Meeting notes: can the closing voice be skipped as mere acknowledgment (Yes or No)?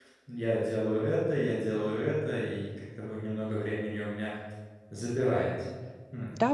No